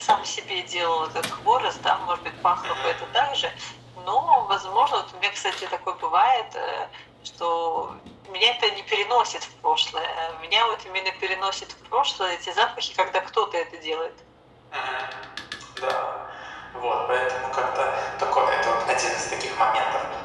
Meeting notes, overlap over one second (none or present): none